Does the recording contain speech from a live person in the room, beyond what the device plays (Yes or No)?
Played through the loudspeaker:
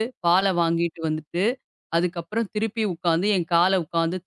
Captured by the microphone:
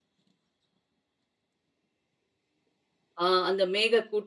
Yes